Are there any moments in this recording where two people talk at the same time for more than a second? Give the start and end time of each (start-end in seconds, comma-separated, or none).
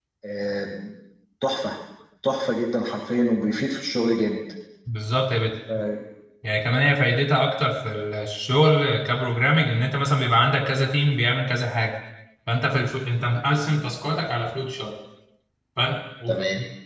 none